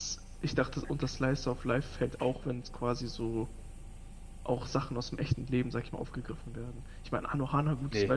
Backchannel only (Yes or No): Yes